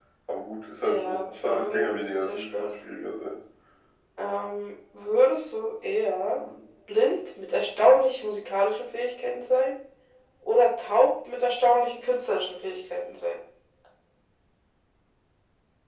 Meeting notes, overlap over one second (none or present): present